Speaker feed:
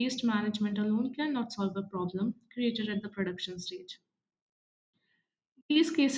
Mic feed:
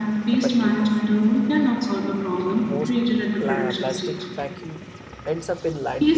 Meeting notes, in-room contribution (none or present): present